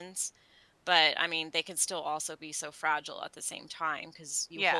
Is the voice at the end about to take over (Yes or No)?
No